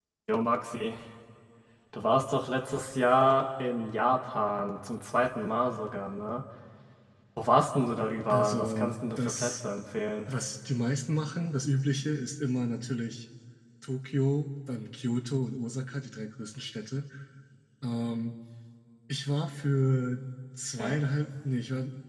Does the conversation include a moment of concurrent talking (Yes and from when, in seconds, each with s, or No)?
Yes, from 8.3 s